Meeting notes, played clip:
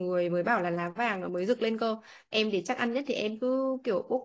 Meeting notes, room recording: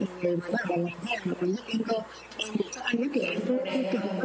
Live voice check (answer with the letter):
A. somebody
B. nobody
A